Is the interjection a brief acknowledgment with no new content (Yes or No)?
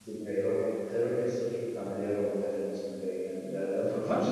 No